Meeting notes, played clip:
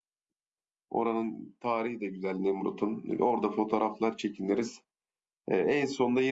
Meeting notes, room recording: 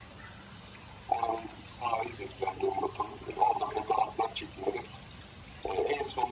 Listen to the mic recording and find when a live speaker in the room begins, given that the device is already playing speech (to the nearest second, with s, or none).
none